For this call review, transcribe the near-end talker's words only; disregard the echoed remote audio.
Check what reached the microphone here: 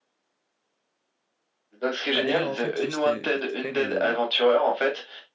Ah, d'ailleurs, en fait, juste euh, vite fait, le,

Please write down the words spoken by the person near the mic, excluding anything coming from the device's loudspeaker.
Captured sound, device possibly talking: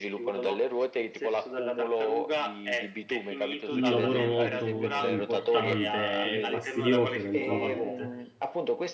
un lavoro molto molto importante e fastidioso eventualmente.

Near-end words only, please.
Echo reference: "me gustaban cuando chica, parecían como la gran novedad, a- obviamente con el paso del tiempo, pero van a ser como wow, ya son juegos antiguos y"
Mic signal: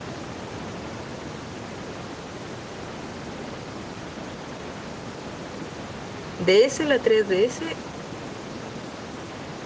DS, la 3DS

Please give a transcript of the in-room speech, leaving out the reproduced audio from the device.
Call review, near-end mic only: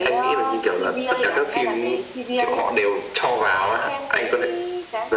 none

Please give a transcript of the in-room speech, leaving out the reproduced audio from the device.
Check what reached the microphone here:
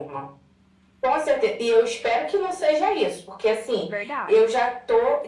verdade.

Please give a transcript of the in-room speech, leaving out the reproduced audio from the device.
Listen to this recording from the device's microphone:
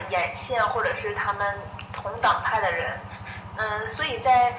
none

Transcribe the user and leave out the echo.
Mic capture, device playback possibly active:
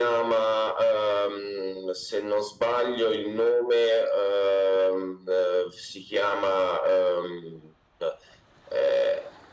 none

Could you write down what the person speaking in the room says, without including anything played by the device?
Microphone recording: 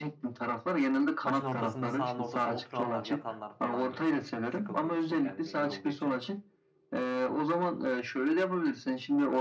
Maçın ortasında sahanın ortasında oturanlar, yatanlar falan böyle. Sıkıldığı için yani benim yorulduğu için.

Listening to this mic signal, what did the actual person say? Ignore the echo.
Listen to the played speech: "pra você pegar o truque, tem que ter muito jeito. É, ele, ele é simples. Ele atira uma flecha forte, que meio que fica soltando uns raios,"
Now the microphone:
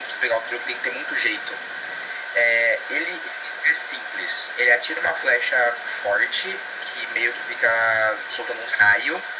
none

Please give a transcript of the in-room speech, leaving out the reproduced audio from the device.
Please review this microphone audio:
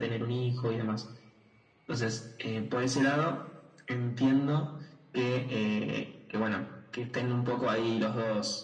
none

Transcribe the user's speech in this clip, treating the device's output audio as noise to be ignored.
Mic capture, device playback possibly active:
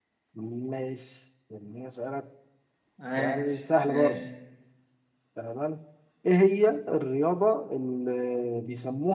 عاش ماشي

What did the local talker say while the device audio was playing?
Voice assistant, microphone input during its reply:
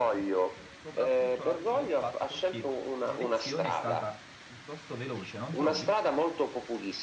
soprattutto alla luce del fatto che l'elezione è stata piuttosto veloce, non trovi?

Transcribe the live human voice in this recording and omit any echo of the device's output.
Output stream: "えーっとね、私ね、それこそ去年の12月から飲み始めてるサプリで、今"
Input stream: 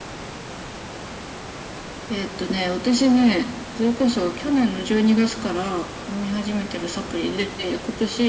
none

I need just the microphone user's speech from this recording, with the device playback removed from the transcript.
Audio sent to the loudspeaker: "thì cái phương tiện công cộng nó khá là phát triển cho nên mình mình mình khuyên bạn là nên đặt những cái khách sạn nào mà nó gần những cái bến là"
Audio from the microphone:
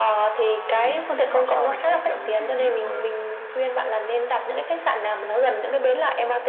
thì làm sao để tiết kiệm cái chi phí mà

